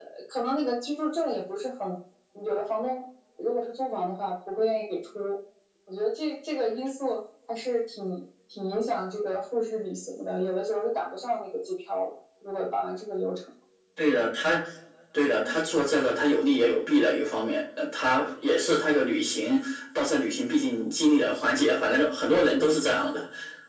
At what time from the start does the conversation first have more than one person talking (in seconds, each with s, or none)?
none